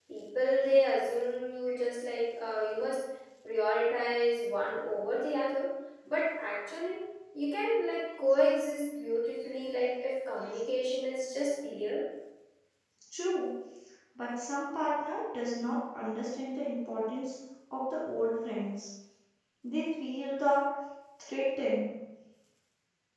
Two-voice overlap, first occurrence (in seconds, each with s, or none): none